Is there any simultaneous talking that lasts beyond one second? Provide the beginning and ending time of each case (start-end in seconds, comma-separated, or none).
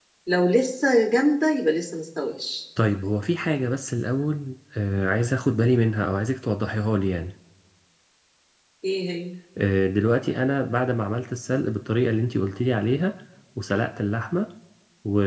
none